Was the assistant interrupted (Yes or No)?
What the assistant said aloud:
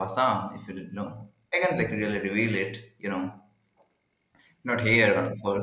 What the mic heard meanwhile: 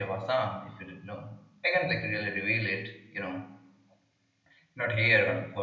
No